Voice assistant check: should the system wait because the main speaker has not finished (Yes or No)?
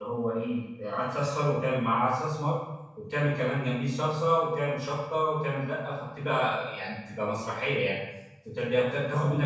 Yes